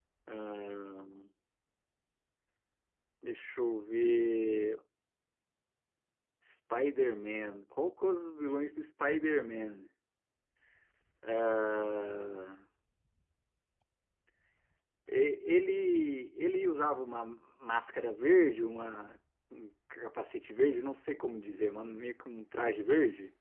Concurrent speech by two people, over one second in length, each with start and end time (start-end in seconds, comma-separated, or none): none